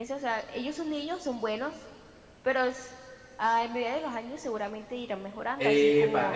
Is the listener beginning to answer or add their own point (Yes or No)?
Yes